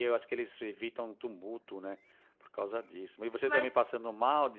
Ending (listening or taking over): listening